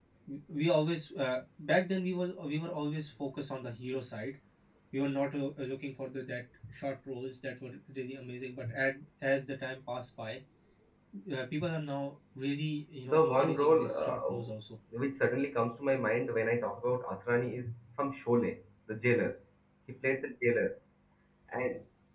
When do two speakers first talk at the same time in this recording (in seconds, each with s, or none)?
13.0 s